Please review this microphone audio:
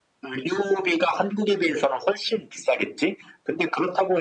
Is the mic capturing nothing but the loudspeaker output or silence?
Yes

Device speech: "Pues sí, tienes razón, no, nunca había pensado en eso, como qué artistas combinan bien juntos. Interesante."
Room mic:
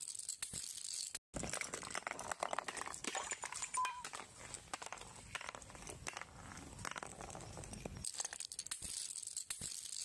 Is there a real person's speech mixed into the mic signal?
No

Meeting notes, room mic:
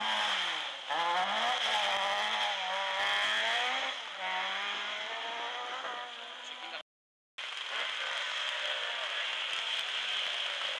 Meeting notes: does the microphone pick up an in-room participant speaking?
No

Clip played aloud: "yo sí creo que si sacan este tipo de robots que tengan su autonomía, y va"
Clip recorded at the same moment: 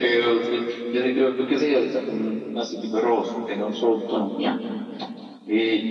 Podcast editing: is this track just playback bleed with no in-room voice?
Yes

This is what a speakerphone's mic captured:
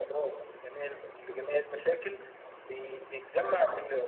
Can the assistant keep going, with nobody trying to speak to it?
Yes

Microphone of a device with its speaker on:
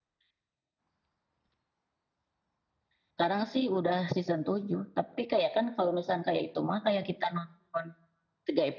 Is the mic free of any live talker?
Yes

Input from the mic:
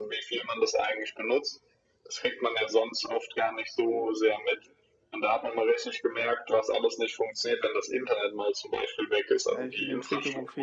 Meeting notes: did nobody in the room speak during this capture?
No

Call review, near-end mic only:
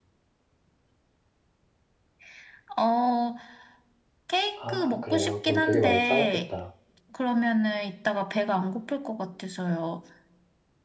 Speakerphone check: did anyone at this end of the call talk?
Yes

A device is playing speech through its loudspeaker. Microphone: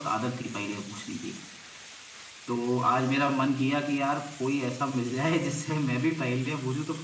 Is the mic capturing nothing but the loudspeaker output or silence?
Yes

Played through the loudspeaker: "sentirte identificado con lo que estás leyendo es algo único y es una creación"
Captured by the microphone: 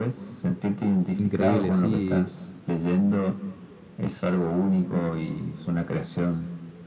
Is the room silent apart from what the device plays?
No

